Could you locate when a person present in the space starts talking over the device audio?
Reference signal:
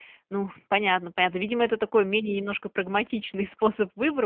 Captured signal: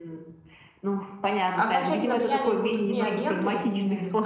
1.5 s

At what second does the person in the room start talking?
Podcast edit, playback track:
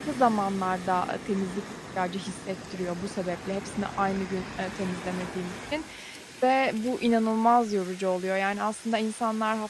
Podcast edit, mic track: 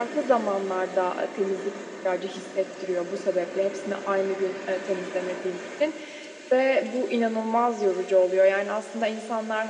none

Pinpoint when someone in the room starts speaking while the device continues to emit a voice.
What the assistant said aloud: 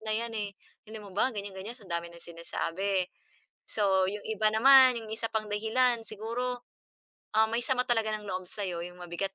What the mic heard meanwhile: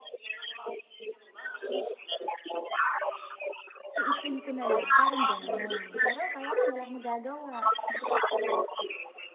4.0 s

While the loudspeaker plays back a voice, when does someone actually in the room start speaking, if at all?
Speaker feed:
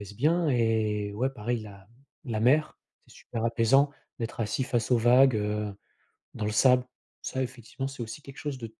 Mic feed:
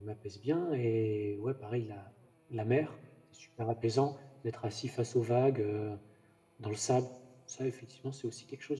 none

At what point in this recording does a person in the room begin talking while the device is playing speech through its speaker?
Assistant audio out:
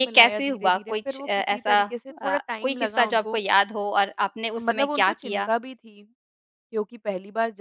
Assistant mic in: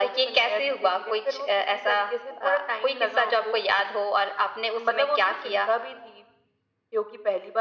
none

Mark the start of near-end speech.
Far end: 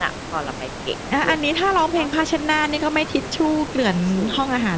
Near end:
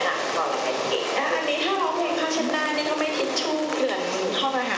2.4 s

